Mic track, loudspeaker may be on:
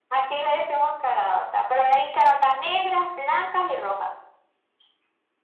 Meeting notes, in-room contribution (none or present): none